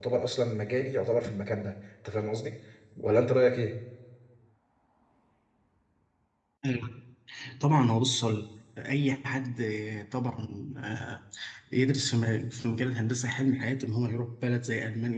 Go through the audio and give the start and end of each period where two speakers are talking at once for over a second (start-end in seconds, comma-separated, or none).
none